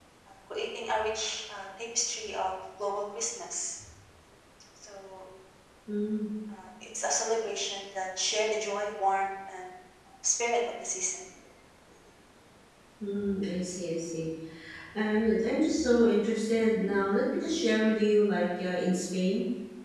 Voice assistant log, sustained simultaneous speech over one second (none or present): none